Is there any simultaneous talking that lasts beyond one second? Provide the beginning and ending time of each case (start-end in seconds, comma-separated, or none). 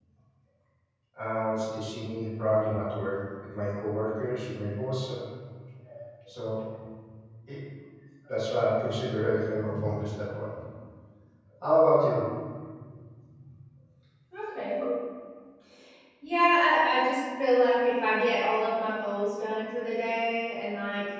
none